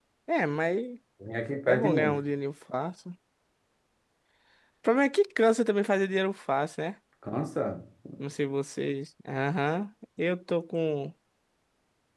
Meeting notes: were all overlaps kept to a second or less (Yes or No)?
Yes